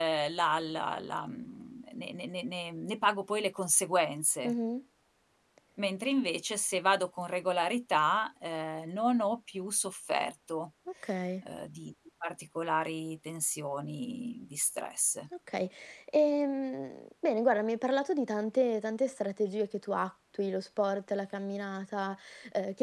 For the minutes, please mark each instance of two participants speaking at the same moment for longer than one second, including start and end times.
none

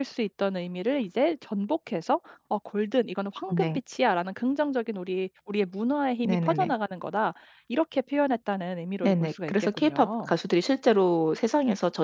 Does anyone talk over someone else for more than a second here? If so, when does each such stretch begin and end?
9.0-10.3

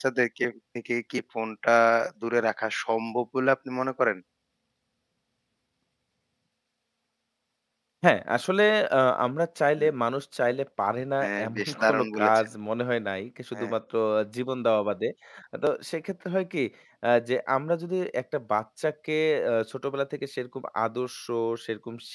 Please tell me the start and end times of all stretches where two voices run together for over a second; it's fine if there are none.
11.2-12.5

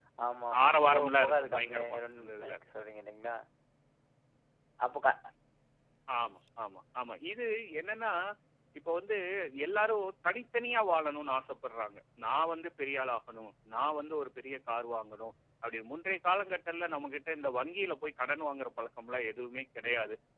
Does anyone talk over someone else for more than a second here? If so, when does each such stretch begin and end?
0.6-2.5

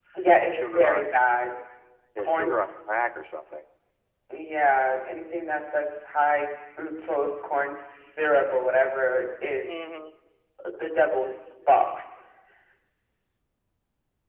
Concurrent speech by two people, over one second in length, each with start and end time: none

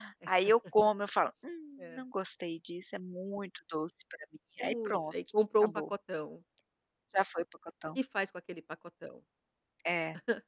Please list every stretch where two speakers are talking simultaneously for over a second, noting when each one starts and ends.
none

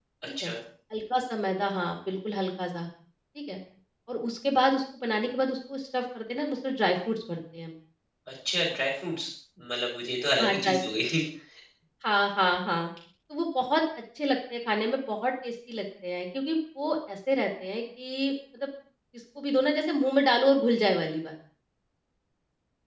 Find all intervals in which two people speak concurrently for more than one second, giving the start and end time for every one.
none

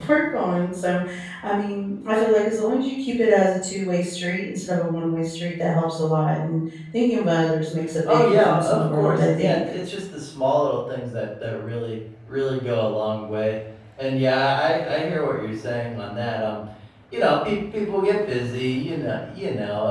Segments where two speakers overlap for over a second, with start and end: 8.1-9.6

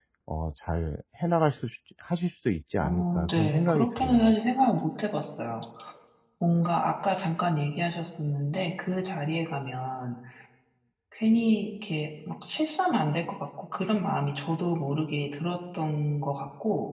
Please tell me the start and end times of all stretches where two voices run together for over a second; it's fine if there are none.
2.8-4.3

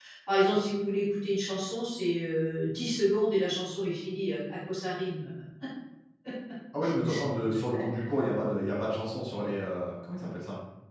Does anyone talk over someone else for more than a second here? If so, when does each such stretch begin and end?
none

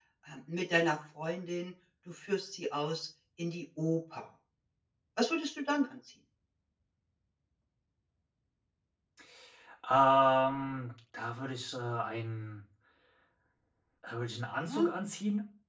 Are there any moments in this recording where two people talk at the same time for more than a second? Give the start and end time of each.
none

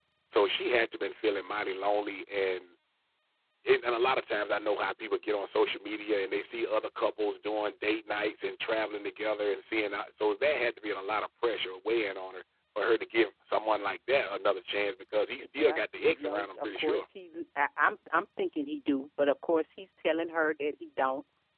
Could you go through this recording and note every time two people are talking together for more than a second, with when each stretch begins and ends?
15.6-17.1

